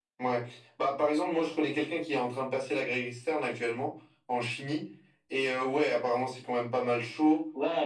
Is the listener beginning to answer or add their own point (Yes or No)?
Yes